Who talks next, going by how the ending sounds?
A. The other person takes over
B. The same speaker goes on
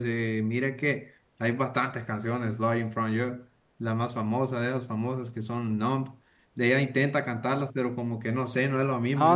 A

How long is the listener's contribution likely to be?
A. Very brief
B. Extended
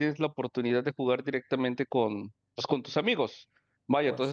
A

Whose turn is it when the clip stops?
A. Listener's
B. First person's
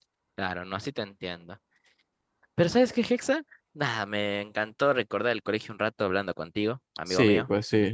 A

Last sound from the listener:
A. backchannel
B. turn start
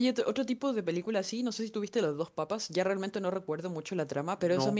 A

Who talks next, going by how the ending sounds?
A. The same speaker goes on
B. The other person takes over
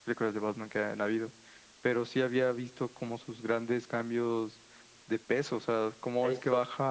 A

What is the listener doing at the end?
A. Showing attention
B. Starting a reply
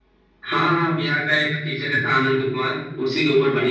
B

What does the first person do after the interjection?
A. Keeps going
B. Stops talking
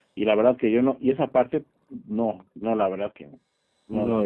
B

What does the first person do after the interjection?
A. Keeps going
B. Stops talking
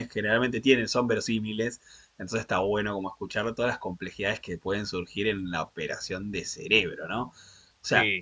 A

